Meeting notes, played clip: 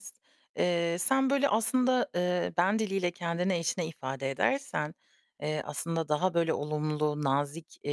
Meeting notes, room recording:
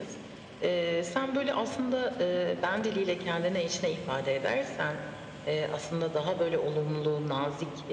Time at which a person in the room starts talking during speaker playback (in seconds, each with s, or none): none